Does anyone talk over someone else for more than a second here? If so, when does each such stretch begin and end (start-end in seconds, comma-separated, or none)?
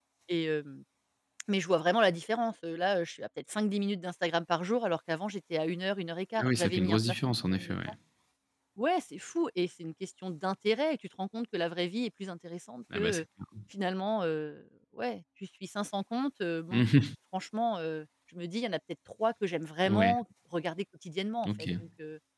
6.4-7.8